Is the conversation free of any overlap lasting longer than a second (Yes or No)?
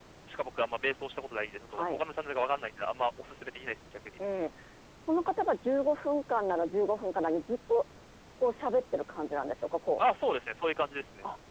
Yes